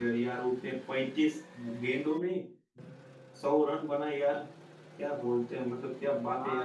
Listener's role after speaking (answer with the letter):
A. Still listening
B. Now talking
B